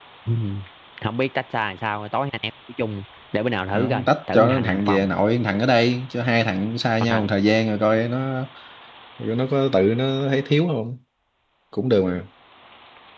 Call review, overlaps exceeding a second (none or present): present